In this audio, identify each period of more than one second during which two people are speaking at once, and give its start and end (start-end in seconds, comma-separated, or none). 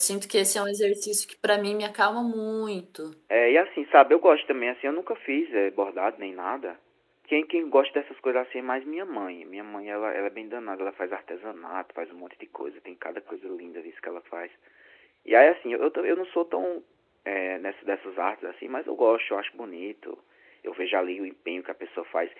none